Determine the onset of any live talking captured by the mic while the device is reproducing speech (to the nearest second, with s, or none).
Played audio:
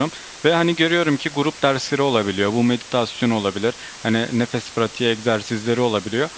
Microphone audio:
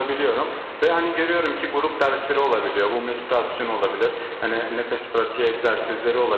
none